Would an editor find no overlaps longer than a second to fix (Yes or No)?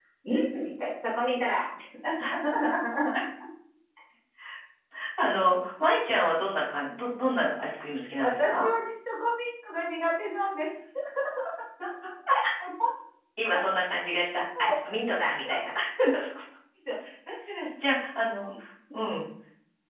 Yes